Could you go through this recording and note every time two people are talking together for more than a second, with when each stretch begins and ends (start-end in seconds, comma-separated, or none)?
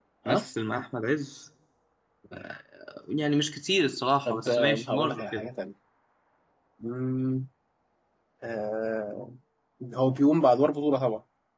4.3-5.5